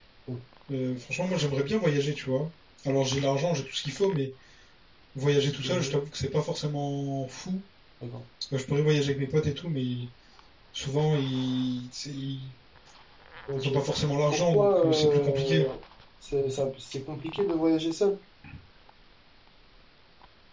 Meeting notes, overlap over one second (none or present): present